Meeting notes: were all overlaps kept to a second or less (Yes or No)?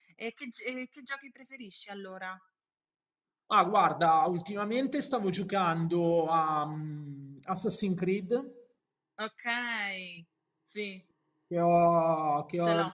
Yes